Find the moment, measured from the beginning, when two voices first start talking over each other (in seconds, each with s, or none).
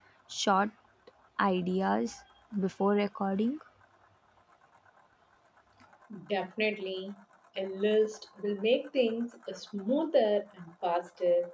none